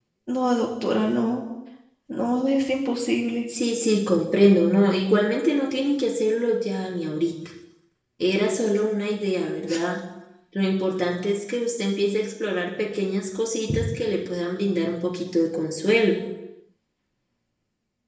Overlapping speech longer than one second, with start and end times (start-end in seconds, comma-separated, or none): none